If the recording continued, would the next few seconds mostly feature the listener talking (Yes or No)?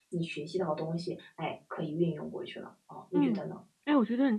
Yes